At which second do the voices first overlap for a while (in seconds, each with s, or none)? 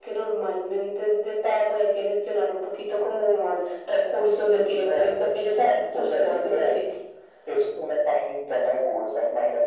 4.6 s